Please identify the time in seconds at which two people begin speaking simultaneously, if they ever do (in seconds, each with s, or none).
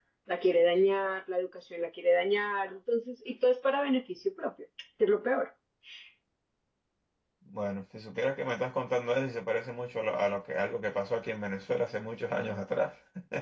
none